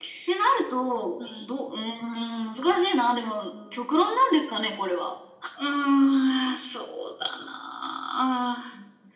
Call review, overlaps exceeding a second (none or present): none